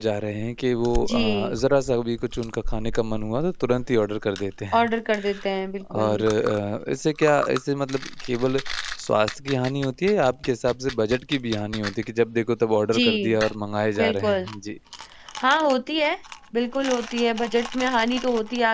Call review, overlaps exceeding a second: none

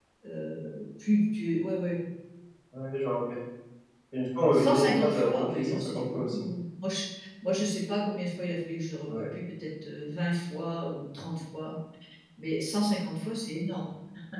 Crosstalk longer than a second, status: present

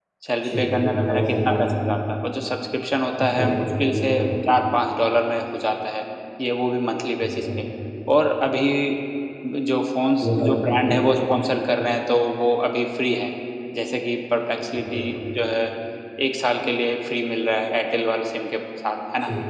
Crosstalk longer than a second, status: present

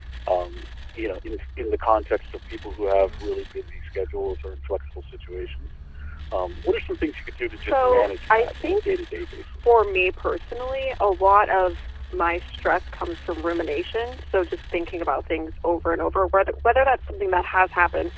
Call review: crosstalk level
present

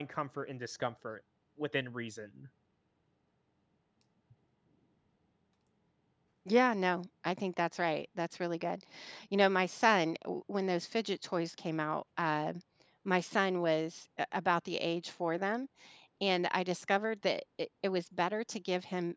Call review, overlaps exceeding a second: none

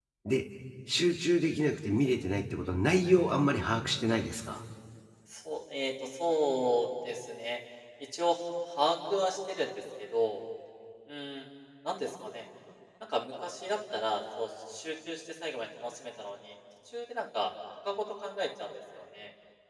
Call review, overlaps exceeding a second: none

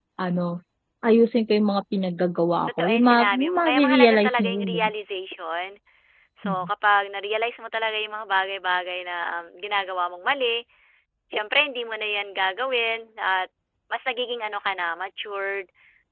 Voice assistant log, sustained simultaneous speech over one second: present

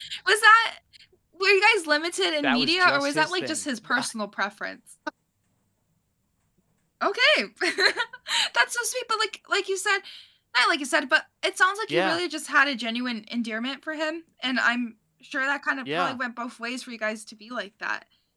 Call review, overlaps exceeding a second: present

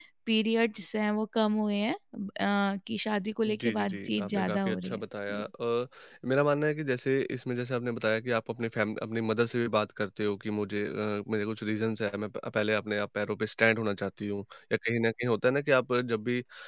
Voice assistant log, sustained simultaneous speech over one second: present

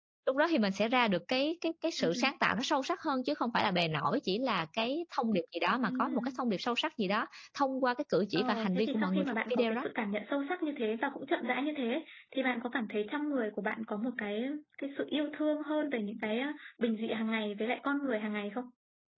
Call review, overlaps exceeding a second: present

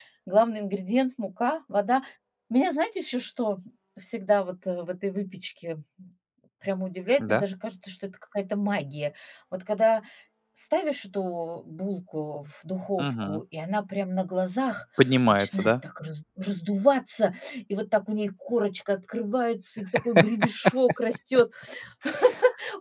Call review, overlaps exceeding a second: none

